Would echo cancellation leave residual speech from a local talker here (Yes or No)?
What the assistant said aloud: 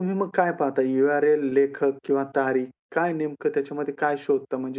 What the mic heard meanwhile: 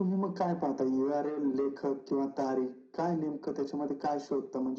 No